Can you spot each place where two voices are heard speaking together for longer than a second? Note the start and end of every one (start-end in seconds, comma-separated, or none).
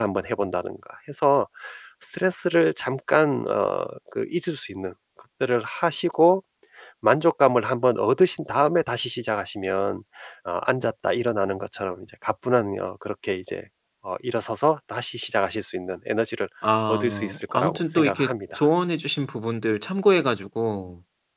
16.9-18.7